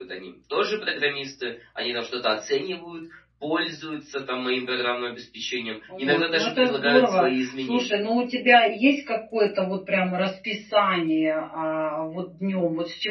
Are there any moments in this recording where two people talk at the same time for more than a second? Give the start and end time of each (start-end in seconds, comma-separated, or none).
6.0-8.0